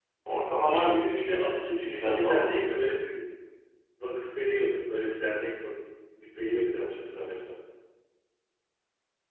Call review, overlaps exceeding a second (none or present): present